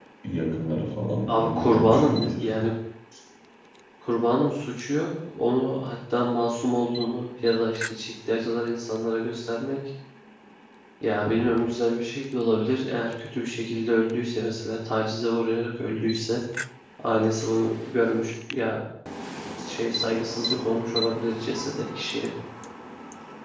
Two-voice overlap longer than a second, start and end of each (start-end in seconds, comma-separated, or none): 1.3-2.7